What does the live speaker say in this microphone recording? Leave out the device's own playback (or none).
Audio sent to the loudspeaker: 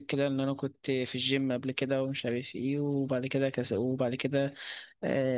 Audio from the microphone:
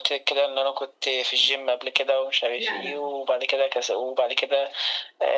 لا لا